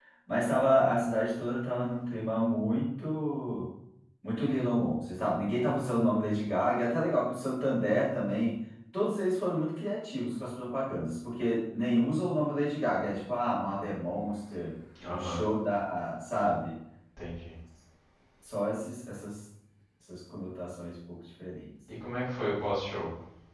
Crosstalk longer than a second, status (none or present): none